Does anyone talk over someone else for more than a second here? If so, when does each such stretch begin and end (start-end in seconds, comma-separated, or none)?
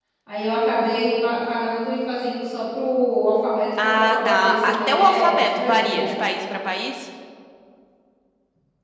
3.8-6.1